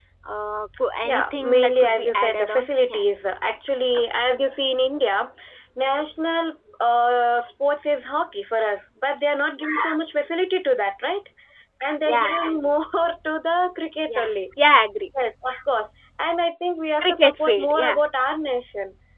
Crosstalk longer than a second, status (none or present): present